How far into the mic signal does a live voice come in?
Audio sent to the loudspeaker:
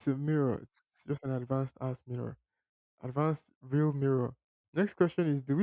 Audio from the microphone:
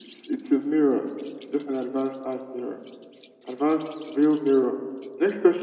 none

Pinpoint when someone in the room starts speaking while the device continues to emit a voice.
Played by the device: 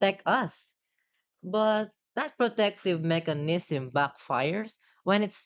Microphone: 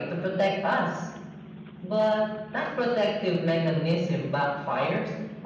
none

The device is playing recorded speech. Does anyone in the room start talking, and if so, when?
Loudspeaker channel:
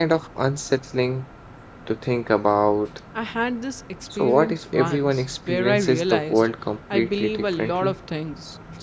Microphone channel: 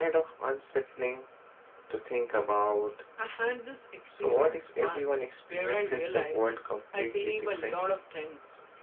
none

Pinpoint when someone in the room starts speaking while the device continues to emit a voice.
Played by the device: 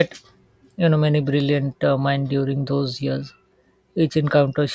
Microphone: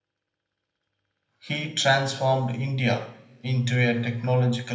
1.4 s

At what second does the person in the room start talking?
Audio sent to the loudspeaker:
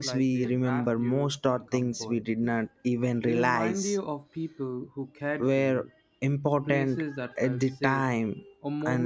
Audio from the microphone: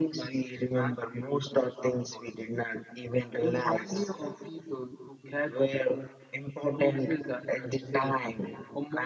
none

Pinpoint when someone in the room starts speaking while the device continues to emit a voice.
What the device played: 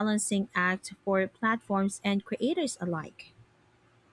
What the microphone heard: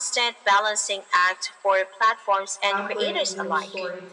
2.7 s

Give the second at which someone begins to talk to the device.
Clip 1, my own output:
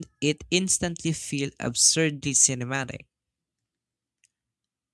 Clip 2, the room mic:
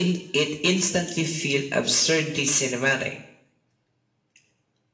none

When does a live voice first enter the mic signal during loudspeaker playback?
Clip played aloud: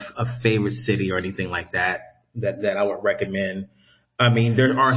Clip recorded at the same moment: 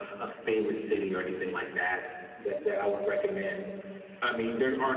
none

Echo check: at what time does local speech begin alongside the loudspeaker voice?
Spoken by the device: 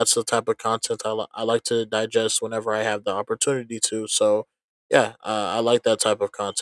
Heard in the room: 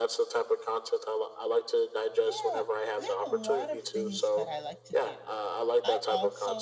2.2 s

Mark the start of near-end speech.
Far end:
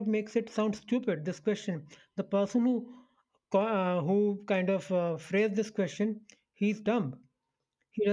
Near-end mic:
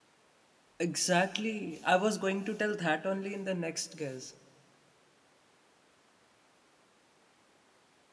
0.8 s

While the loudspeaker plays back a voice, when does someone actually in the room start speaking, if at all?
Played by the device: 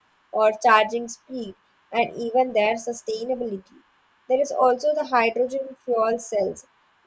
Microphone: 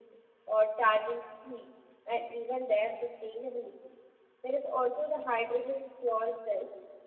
none

